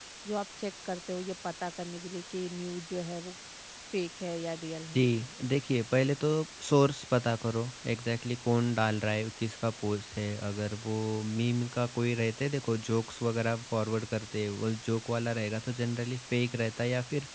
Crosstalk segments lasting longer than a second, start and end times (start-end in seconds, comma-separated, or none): none